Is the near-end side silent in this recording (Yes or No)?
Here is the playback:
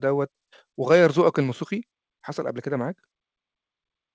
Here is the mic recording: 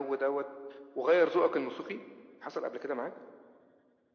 Yes